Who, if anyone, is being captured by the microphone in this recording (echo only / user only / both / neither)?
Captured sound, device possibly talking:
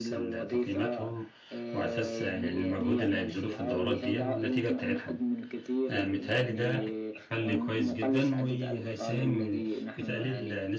both